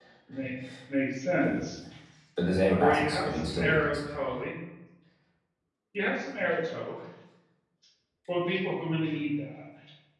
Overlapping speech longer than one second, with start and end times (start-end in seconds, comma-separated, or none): 2.8-4.2